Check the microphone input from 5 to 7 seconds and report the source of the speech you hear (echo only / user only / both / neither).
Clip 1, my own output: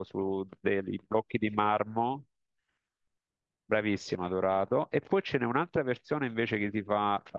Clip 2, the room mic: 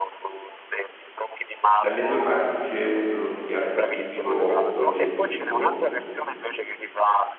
both